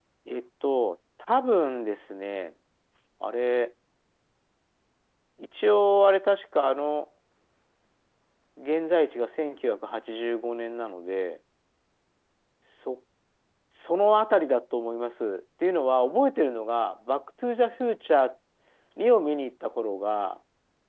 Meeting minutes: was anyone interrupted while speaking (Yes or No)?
No